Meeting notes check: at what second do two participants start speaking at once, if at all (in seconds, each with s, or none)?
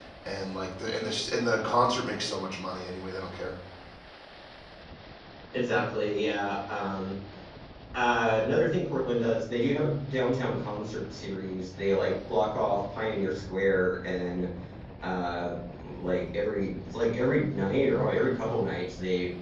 none